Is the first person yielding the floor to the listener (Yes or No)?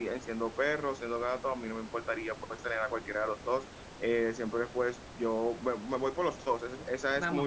Yes